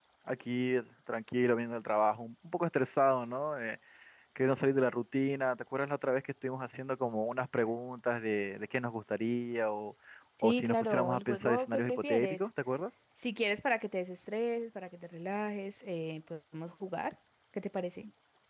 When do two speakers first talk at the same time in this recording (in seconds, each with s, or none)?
10.4 s